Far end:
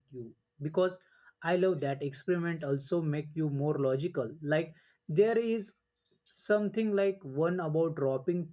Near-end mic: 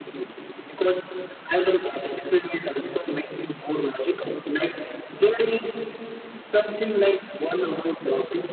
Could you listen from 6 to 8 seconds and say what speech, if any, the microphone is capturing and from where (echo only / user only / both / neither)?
echo only